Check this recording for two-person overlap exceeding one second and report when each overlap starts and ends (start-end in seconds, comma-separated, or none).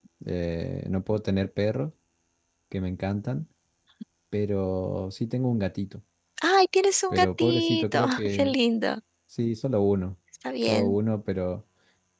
7.1-8.5